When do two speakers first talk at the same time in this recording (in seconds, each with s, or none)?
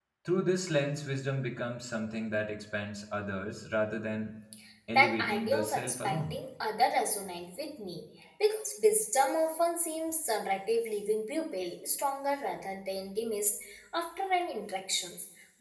5.0 s